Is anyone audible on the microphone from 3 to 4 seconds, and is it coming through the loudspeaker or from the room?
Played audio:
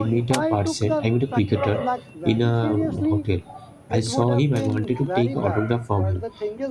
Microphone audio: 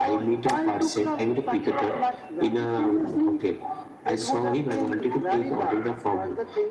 echo only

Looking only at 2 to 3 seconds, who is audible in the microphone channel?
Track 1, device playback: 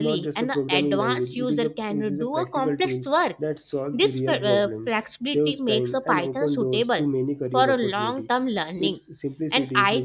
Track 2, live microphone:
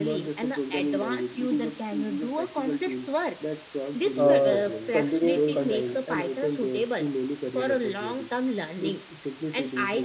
echo only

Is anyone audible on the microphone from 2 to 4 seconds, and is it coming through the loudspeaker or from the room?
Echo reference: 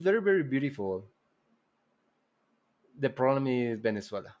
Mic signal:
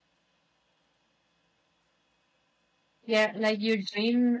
user only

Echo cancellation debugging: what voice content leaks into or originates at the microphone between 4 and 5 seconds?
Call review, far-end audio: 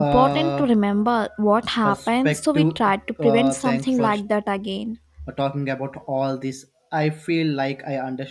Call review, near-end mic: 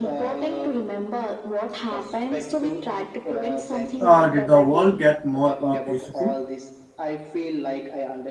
both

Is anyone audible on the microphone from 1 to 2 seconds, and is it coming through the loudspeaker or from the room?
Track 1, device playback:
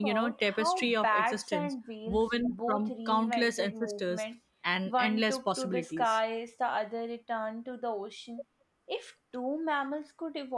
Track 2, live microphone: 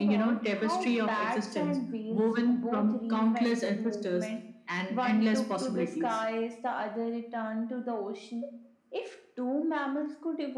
echo only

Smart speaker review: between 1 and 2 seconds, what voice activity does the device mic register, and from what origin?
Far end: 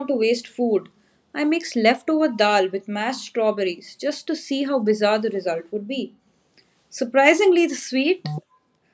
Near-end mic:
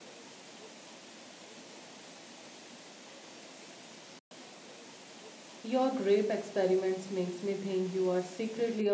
neither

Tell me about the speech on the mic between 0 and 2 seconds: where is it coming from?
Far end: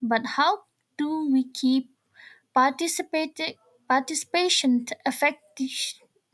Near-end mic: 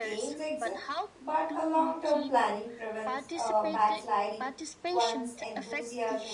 both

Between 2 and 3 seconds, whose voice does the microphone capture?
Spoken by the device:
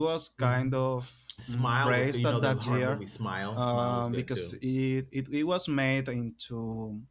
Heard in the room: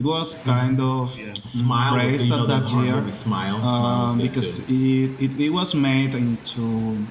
both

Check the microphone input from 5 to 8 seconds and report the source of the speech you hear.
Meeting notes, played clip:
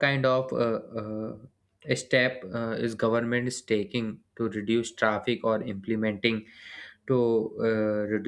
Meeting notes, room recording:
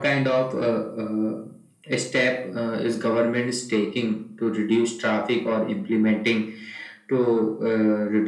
echo only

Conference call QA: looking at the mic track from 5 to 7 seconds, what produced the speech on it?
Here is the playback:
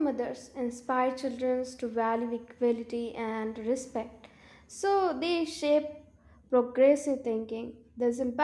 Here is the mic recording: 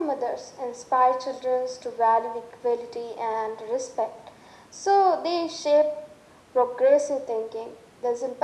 echo only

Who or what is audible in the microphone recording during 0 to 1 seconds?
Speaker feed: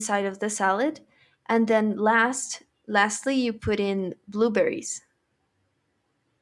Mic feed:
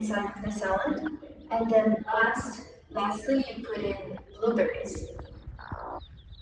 echo only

